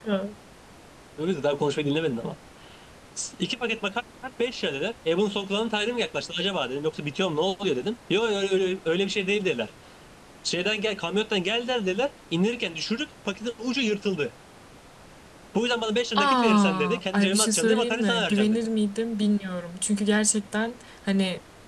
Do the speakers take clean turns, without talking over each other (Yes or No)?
No